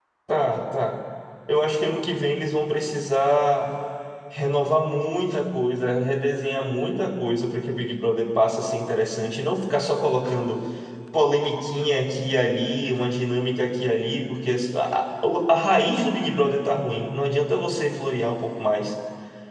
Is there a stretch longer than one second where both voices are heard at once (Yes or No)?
No